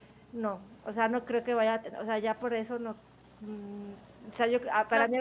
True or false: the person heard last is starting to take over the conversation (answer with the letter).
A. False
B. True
B